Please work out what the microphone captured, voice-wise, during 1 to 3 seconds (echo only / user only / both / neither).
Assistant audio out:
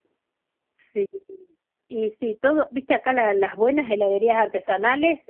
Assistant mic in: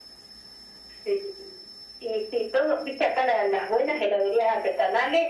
echo only